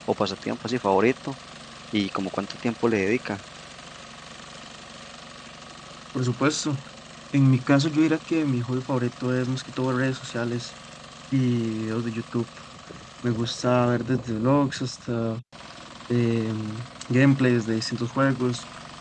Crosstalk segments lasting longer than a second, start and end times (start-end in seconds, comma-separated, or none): none